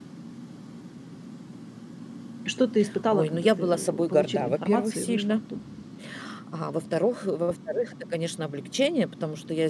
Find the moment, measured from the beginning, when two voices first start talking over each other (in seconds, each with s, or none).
3.1 s